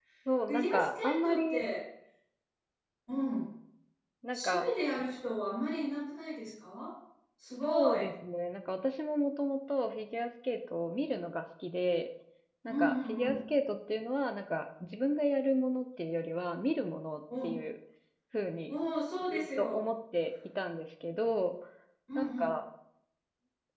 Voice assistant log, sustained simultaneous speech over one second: present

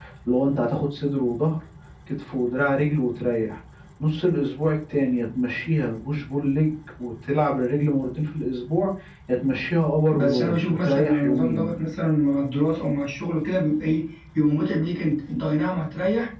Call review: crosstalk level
present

